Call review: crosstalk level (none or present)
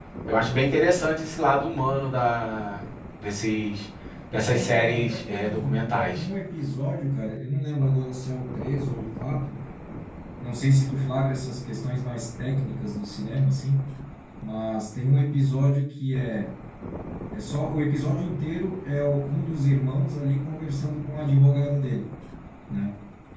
present